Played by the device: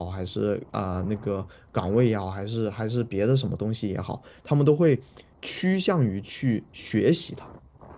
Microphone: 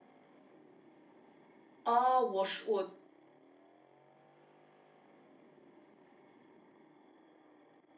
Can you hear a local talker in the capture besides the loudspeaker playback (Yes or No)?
Yes